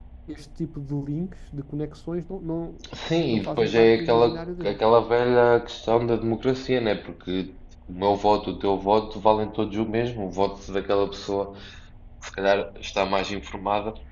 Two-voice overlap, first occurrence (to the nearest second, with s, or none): 3 s